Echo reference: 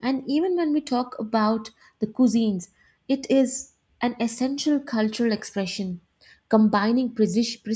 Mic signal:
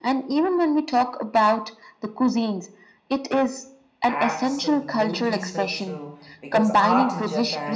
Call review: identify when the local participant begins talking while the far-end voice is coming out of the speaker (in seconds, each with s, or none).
4.1 s